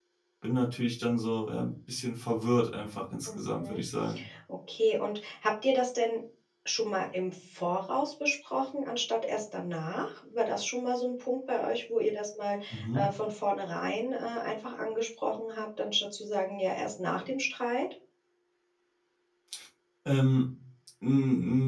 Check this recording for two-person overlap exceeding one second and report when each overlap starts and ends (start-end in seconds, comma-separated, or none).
none